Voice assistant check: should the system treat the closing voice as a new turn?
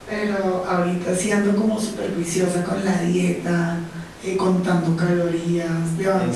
No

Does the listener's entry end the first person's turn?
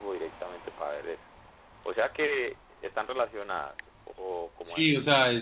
Yes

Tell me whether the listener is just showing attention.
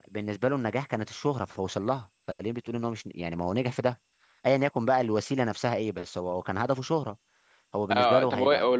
No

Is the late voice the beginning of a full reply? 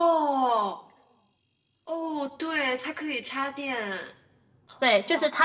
Yes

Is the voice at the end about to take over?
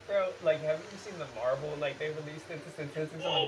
Yes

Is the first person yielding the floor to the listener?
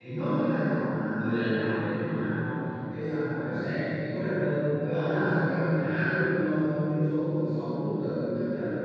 No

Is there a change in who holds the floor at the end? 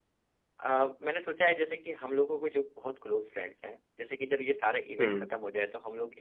No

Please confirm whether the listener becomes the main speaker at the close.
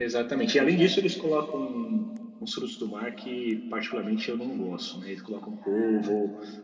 No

